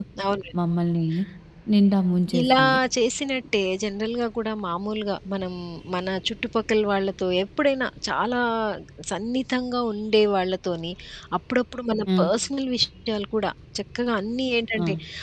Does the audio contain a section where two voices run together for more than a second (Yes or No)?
No